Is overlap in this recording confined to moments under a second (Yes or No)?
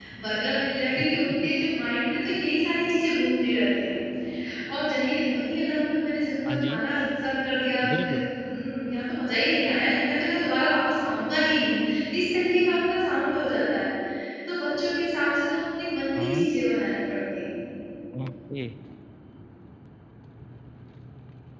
Yes